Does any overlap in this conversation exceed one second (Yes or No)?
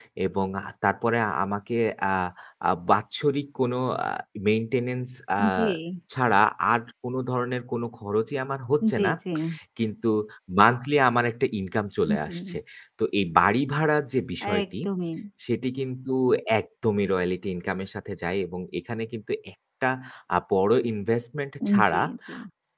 No